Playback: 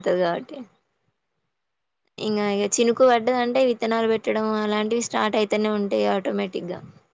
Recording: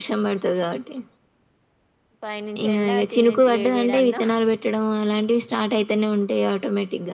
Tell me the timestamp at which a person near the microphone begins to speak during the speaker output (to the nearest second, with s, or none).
2 s